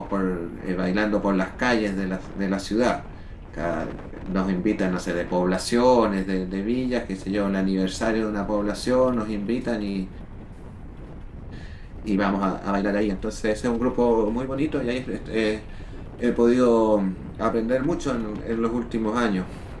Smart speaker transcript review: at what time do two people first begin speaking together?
none

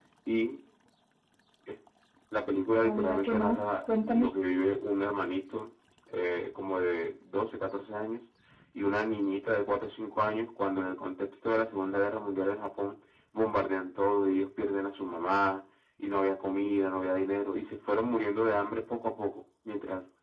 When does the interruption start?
2.8 s

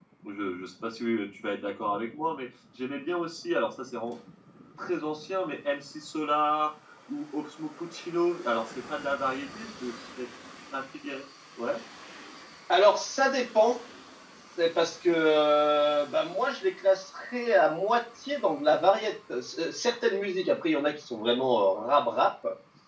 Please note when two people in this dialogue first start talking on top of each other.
none

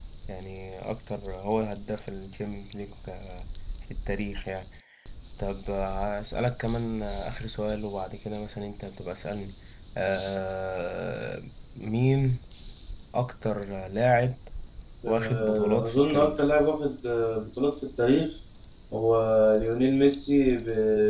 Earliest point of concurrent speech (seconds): 15.1 s

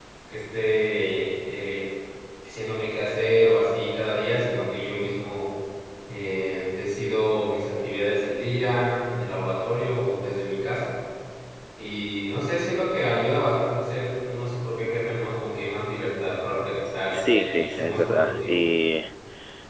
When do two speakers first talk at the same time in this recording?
17.1 s

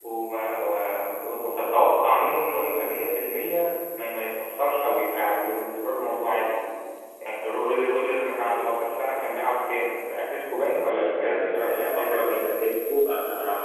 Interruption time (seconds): 10.9 s

